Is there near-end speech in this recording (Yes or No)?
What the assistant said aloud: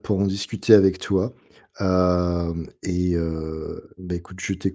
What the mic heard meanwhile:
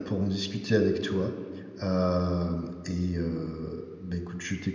No